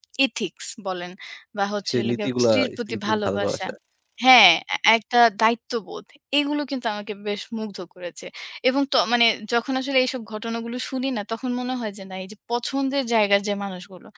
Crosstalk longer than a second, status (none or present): present